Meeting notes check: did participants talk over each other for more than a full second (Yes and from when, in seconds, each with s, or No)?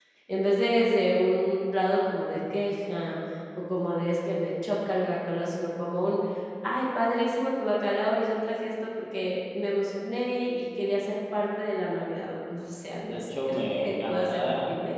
Yes, from 13.0 s